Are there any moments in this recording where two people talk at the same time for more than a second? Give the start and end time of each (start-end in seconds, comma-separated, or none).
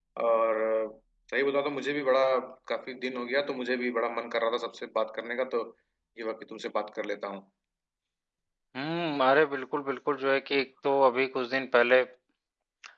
none